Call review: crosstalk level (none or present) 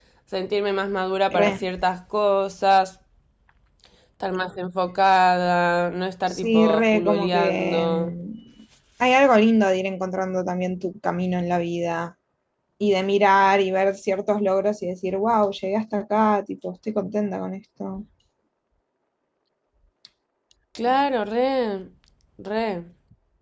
present